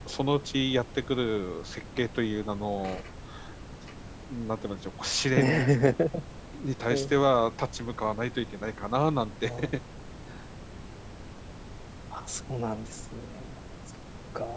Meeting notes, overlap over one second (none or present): none